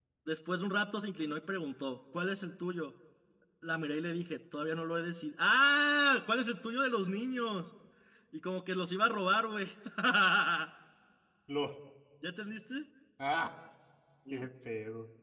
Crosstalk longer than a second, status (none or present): none